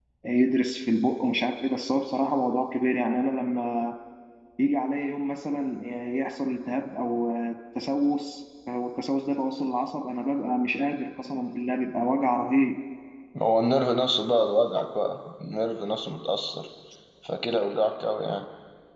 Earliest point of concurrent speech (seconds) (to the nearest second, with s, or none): none